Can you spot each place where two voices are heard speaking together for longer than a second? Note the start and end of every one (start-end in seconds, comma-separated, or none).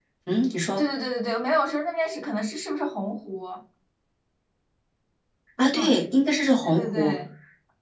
none